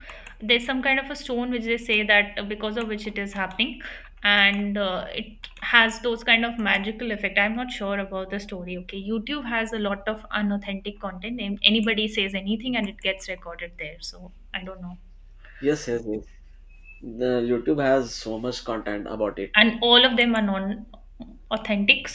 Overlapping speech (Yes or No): No